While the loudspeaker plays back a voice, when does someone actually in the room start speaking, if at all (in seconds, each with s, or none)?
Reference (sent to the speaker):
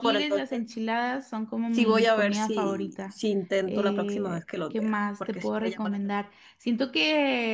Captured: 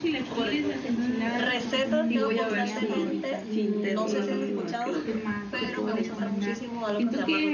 0.9 s